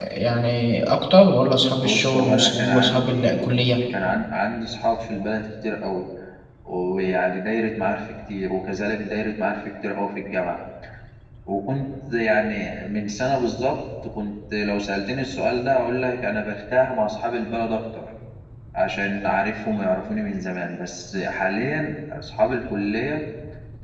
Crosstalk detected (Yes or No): Yes